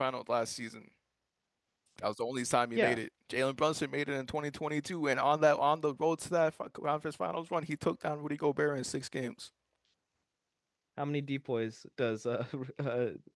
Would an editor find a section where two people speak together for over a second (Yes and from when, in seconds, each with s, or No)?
No